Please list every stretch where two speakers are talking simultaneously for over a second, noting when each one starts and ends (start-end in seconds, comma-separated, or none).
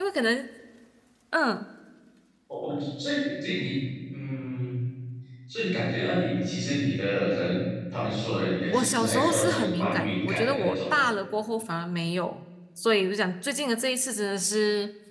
8.7-10.8